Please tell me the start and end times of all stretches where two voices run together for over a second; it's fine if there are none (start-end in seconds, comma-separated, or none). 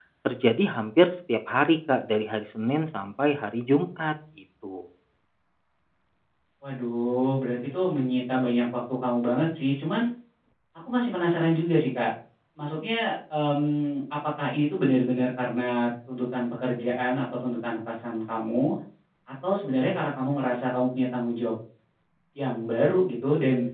none